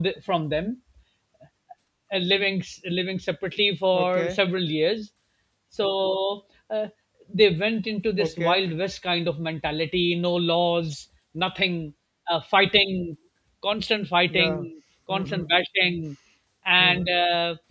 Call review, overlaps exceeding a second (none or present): none